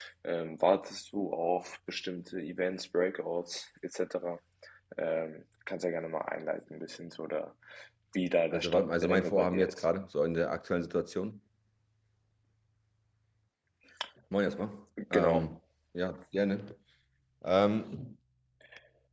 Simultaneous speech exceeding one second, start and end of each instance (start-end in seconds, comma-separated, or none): 8.5-9.8